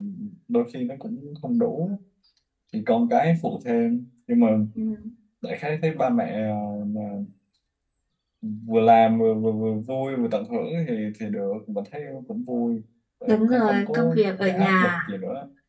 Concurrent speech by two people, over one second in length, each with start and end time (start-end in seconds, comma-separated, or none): 13.3-14.9